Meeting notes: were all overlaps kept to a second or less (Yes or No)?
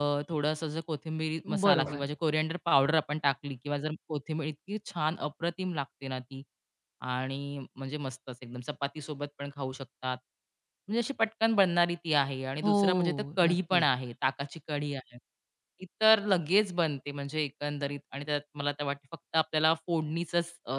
No